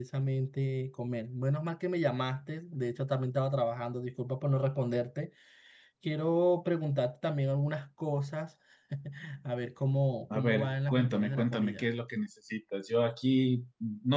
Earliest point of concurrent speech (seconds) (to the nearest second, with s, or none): 10 s